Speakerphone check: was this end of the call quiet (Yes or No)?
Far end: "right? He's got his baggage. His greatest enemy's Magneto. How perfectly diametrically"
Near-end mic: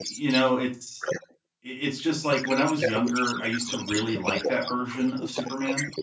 No